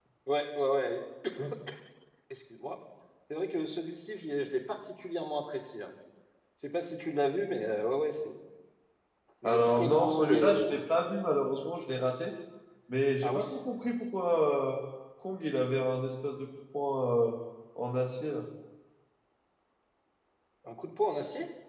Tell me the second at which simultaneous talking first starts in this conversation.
9.4 s

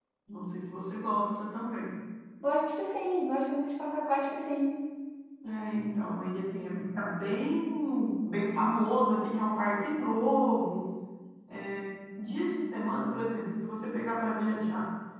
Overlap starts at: none

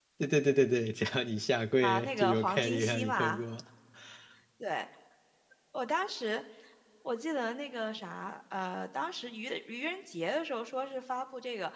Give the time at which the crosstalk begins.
1.8 s

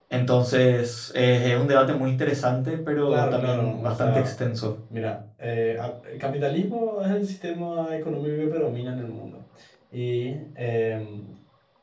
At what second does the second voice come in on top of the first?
3.1 s

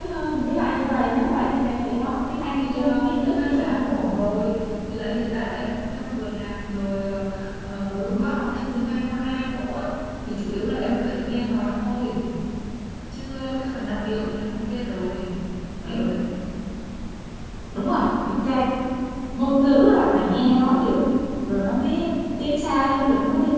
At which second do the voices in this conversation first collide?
2.5 s

